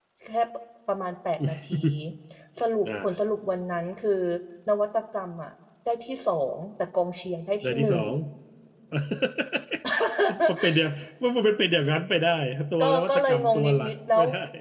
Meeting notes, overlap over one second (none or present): present